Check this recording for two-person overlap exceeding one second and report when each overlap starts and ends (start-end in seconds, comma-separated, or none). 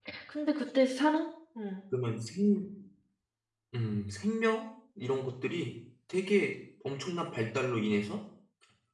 none